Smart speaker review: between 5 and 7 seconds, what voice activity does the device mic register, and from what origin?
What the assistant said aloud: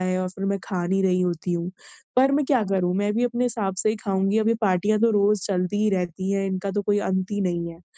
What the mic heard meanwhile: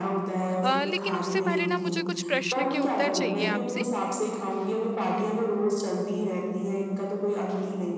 echo only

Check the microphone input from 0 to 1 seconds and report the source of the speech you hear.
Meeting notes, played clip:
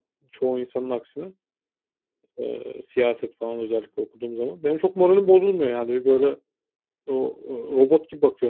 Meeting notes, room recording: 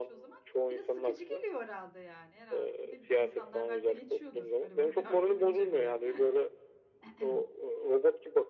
both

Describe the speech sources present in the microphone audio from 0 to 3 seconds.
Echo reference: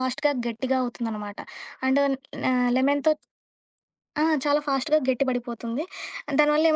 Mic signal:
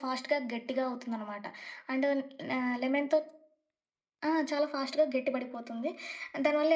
echo only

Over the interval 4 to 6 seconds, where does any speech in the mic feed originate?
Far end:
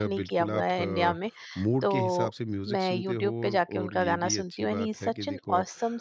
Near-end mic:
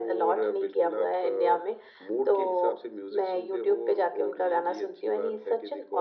echo only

